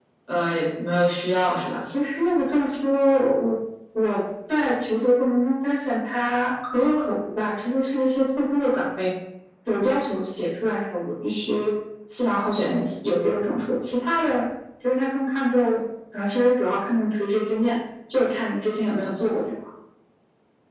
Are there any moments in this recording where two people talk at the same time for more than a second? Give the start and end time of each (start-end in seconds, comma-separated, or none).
none